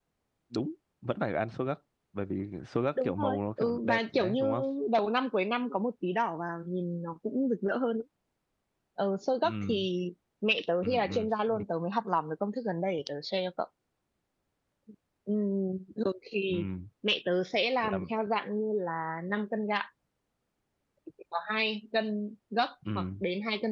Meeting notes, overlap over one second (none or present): present